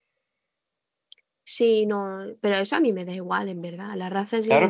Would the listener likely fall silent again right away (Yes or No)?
No